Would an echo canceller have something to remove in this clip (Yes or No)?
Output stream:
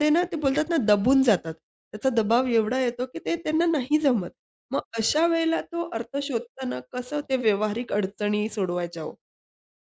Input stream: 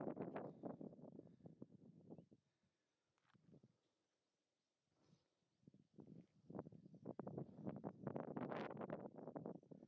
No